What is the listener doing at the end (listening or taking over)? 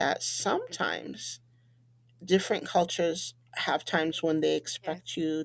listening